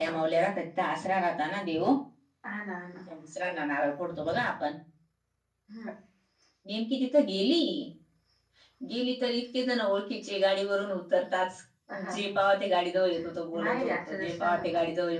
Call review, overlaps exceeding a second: present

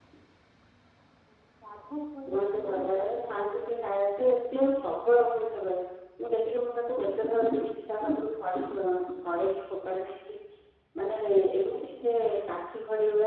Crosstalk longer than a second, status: present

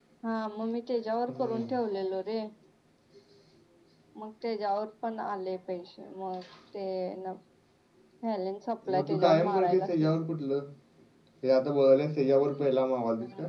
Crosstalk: present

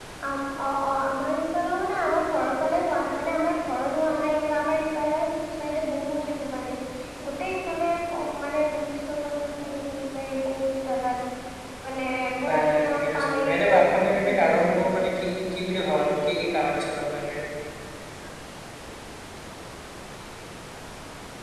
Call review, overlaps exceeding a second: present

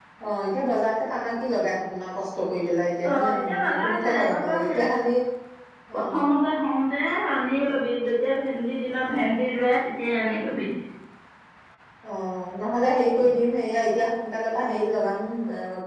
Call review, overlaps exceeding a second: present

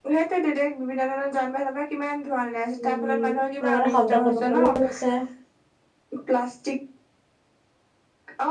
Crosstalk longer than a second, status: present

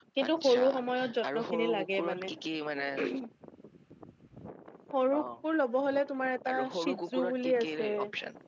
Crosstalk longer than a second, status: present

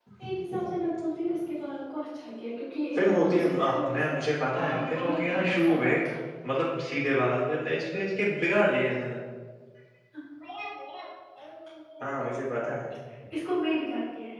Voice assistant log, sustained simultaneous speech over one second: present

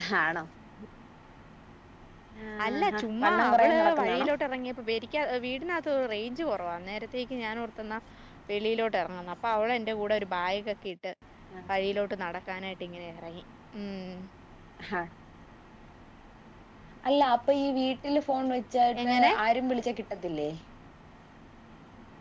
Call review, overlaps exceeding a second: present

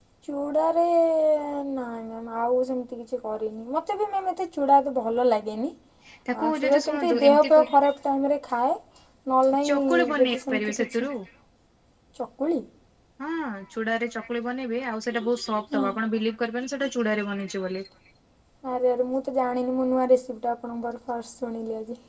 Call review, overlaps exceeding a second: present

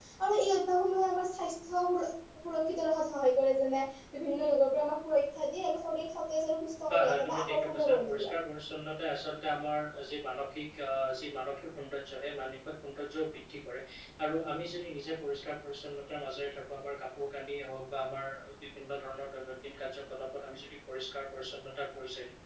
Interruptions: present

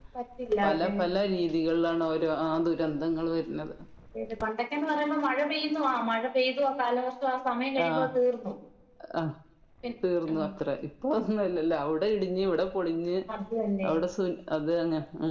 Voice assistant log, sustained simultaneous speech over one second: none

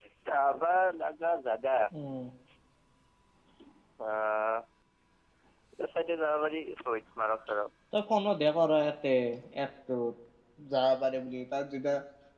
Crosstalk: none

